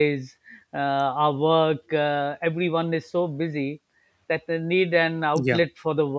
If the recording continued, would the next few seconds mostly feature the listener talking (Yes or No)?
No